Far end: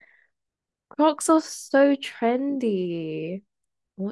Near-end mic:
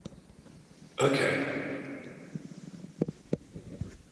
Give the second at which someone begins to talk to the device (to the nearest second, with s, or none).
1 s